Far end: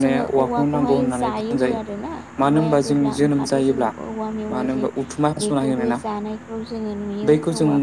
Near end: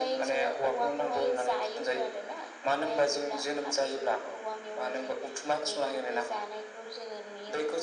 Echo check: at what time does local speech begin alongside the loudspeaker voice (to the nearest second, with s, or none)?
none